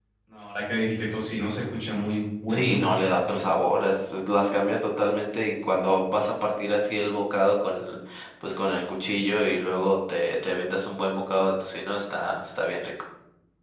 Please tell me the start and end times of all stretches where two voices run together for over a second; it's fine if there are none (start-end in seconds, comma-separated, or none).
none